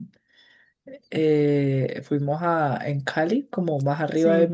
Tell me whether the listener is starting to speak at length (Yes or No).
No